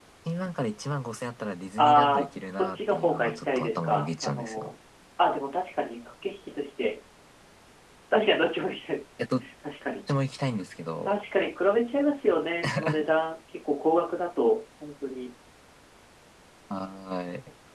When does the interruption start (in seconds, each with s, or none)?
1.8 s